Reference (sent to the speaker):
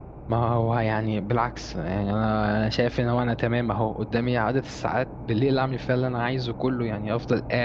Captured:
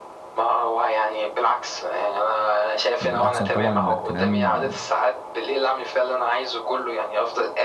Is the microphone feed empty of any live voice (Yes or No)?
No